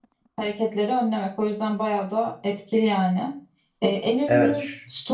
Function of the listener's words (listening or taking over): listening